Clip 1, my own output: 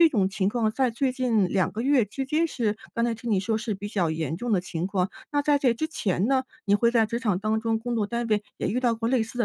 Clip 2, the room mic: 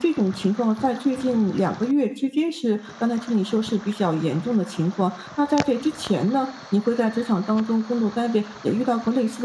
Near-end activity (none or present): none